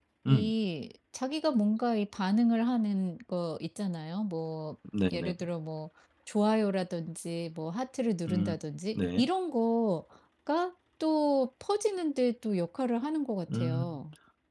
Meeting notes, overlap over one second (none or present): none